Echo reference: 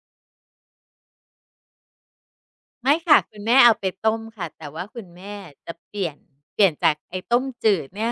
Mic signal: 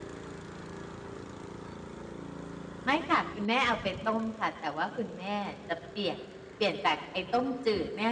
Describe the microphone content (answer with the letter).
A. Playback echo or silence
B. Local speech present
A